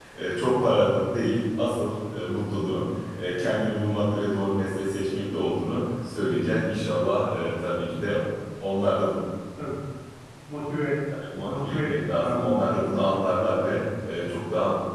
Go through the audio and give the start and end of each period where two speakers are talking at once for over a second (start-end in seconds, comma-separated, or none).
11.4-13.2